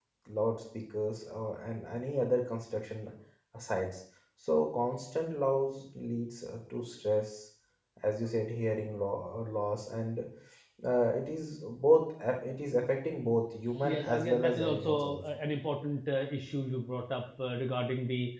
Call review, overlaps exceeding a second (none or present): present